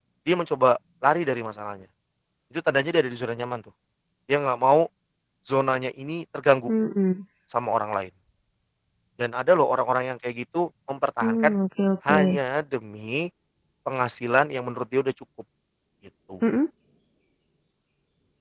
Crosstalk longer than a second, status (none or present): none